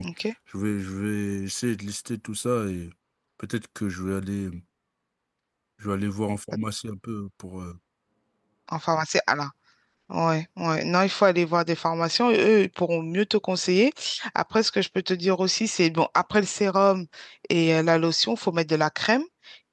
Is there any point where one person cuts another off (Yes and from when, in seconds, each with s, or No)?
No